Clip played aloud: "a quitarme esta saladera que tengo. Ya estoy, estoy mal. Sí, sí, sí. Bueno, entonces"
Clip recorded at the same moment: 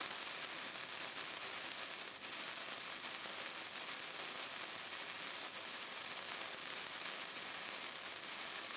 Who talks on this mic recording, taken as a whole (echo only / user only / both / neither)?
neither